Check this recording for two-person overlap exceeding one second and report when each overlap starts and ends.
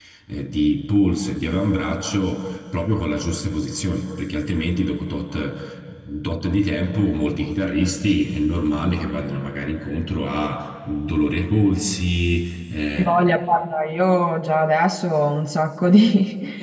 none

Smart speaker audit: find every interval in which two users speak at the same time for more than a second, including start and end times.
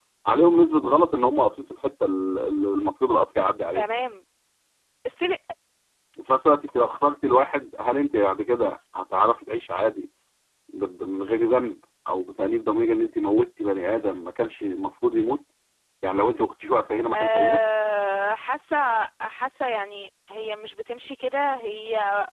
none

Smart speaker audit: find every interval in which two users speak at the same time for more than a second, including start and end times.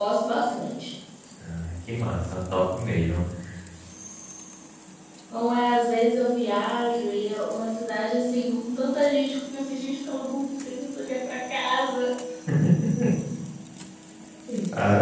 none

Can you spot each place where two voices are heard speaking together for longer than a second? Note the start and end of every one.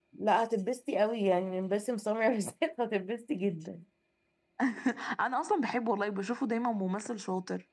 none

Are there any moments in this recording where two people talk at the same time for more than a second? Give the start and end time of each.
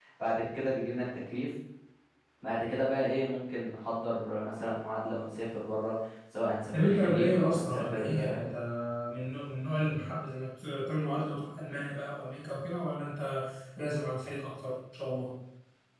6.7-8.2

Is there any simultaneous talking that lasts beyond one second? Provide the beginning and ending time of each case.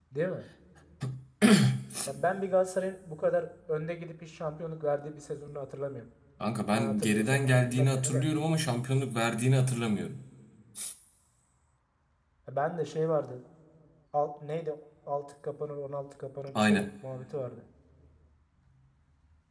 6.7-8.2

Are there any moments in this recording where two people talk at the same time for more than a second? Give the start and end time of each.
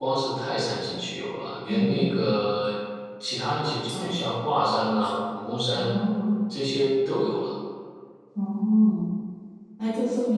none

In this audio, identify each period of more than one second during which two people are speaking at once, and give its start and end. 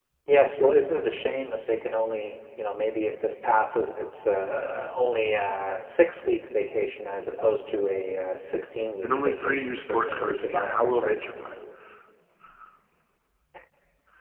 9.0-11.2

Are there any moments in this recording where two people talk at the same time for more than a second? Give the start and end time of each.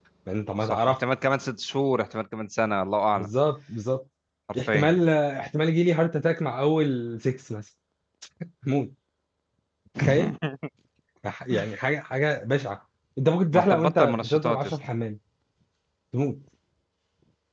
13.5-14.7

